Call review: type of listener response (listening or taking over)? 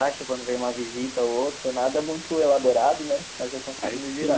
taking over